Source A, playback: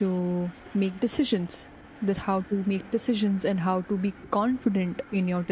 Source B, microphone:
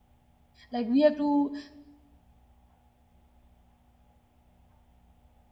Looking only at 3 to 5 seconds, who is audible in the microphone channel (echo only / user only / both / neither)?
neither